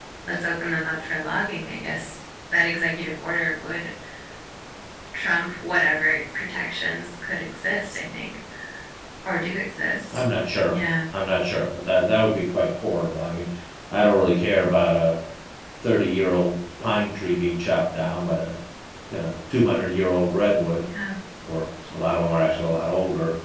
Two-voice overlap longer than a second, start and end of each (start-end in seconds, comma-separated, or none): none